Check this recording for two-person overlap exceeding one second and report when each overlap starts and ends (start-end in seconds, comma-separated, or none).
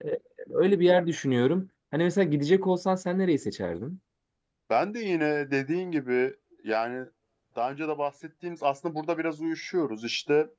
none